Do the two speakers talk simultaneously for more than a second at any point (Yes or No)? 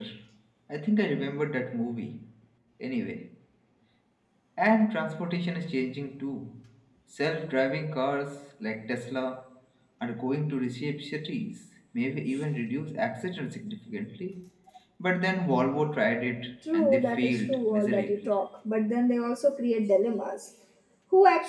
Yes